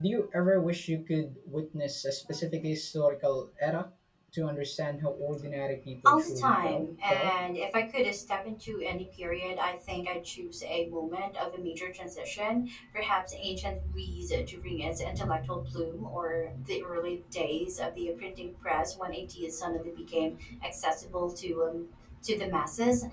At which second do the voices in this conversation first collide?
6.0 s

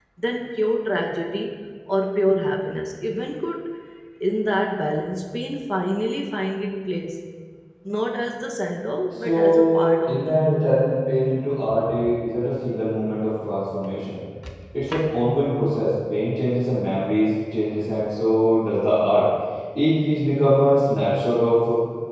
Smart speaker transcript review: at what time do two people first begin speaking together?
9.2 s

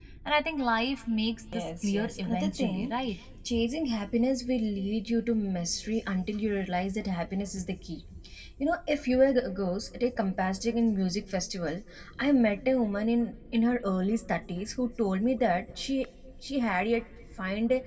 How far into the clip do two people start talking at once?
1.5 s

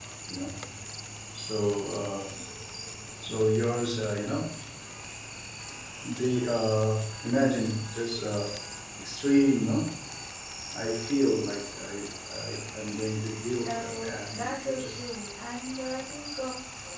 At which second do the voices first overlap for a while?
13.7 s

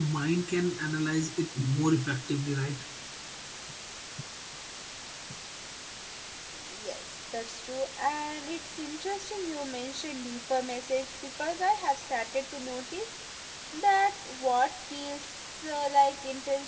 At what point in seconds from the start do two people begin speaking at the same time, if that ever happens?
none

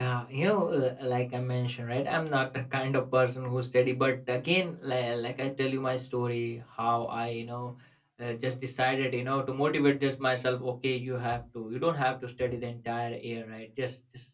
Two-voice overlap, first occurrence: none

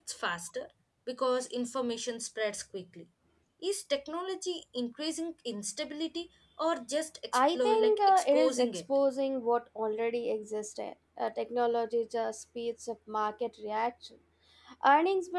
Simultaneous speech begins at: 7.3 s

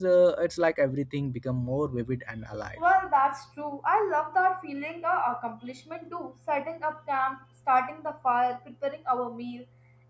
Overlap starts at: none

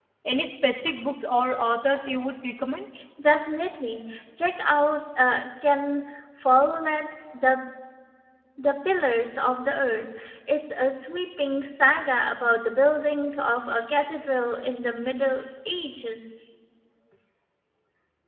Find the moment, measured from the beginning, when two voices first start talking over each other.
none

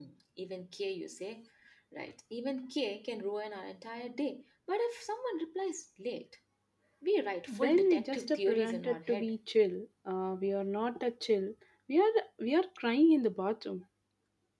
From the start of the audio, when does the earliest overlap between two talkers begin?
7.5 s

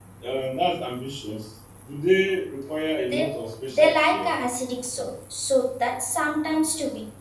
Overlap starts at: 3.1 s

